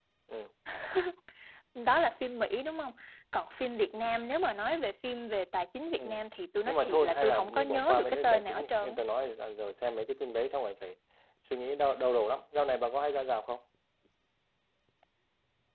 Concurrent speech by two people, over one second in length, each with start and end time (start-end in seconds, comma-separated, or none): 6.7-8.9